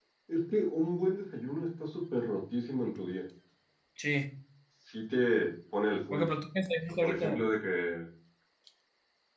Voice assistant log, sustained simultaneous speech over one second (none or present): none